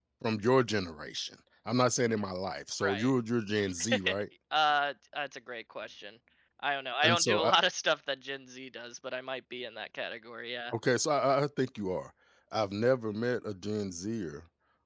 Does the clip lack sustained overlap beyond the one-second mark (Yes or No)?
Yes